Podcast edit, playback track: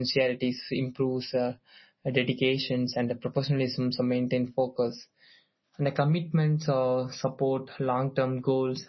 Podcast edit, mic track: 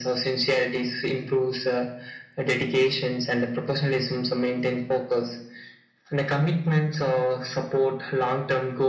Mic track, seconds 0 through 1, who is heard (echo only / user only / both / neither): echo only